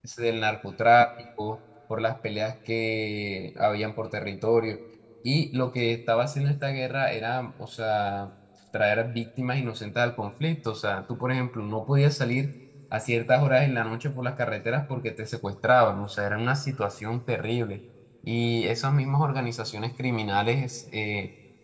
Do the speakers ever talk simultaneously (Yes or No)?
No